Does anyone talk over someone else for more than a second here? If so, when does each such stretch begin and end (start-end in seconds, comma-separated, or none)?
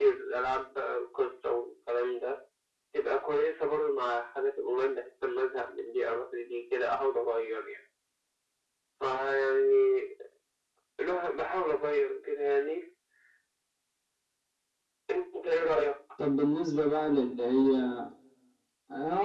none